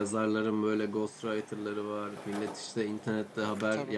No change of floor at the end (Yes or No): Yes